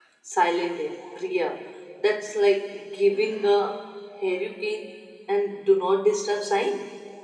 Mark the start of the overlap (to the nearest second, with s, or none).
none